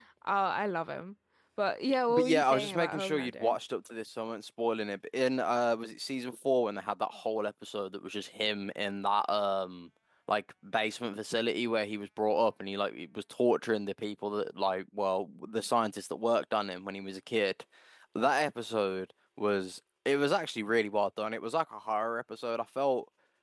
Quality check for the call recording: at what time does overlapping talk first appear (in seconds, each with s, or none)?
2.1 s